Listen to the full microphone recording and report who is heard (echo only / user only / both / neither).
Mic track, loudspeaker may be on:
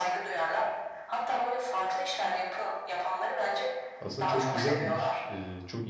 both